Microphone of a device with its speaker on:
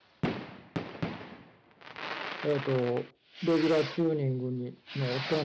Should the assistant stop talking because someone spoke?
Yes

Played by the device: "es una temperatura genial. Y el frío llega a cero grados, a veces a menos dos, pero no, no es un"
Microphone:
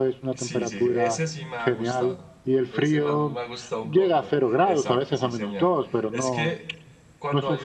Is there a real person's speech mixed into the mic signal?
Yes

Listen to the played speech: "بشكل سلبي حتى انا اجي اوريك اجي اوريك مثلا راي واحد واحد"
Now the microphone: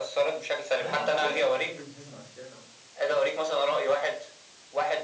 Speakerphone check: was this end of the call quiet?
No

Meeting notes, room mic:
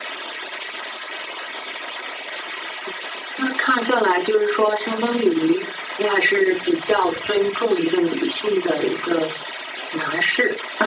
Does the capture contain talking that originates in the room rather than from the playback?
No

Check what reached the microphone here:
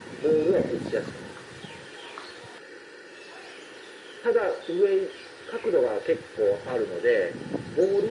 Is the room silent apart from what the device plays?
Yes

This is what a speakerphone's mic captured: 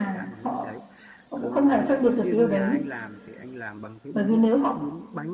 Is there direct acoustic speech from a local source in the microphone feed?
Yes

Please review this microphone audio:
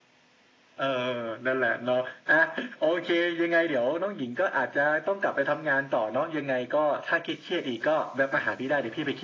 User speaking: No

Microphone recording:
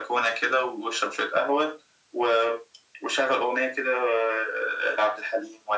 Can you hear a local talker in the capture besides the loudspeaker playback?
No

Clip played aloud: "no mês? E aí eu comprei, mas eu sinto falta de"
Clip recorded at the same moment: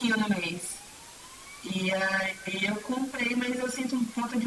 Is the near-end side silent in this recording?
Yes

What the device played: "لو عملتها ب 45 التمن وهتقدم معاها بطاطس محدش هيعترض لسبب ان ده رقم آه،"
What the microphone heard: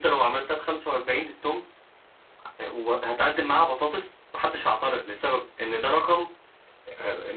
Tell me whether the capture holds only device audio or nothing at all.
Yes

